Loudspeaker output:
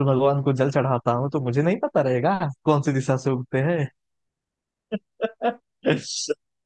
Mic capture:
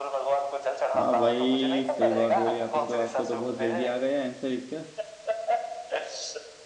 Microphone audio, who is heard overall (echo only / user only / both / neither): both